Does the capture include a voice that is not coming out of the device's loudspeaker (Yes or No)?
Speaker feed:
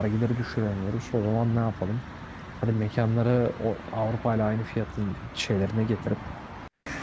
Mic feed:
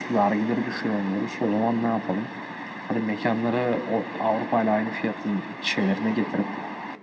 No